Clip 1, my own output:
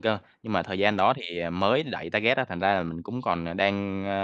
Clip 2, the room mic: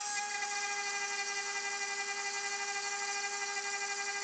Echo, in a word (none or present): none